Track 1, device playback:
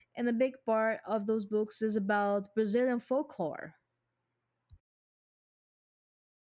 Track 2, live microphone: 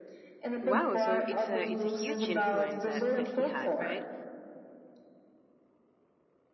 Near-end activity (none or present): present